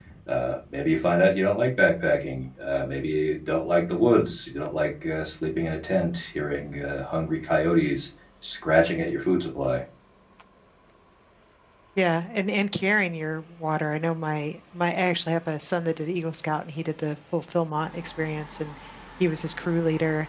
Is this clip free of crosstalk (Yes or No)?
Yes